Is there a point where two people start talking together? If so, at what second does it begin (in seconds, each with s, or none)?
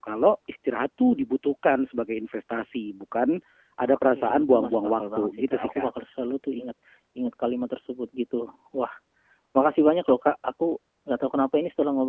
3.9 s